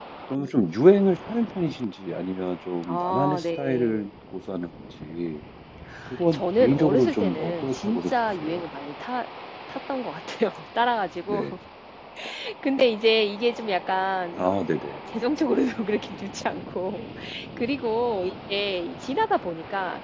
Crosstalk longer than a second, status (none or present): present